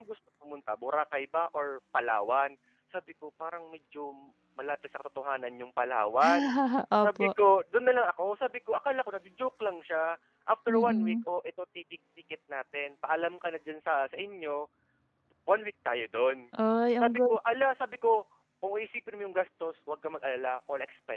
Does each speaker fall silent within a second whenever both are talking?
Yes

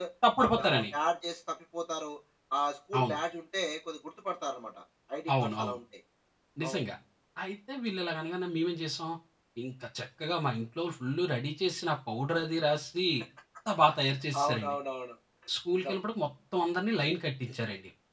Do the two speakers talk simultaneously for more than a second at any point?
No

